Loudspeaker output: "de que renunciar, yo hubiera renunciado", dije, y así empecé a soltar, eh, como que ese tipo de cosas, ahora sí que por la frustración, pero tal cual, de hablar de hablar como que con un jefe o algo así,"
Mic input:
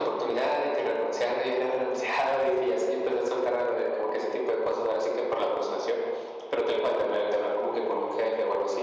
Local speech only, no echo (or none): none